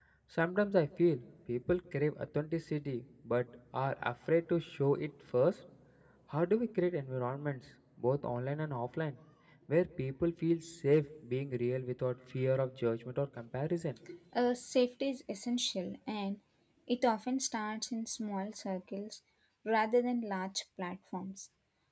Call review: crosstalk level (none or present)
none